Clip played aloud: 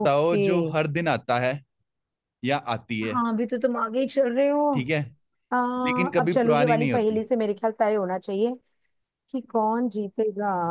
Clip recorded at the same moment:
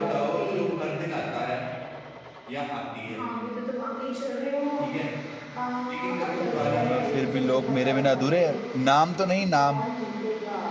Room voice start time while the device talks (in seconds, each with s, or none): 6.6 s